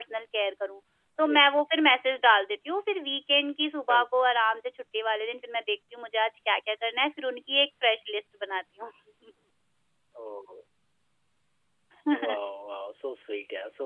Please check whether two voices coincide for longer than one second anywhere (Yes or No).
No